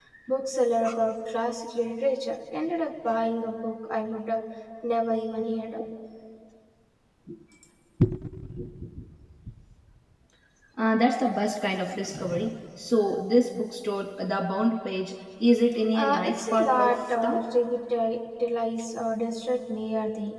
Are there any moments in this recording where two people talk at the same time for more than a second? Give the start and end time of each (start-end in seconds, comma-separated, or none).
15.9-17.4